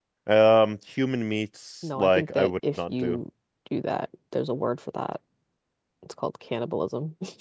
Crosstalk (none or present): present